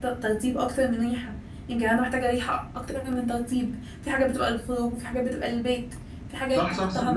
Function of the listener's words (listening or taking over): taking over